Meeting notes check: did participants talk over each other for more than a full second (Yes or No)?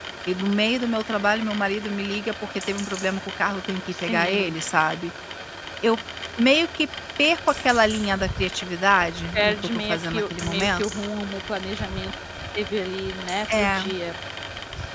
Yes